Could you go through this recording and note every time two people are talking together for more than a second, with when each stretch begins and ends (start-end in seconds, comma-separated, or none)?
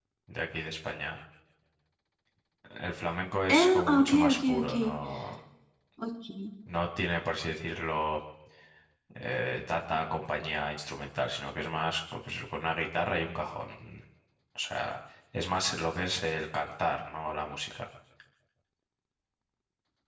3.5-4.7